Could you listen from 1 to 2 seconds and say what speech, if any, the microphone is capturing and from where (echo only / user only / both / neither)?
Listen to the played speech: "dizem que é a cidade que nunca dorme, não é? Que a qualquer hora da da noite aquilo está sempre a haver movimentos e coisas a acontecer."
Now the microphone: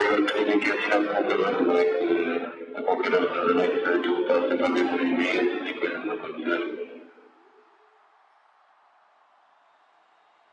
echo only